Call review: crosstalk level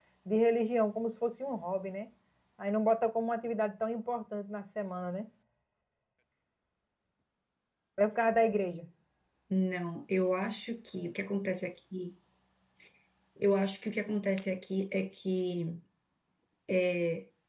none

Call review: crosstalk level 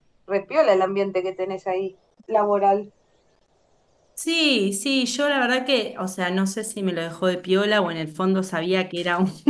none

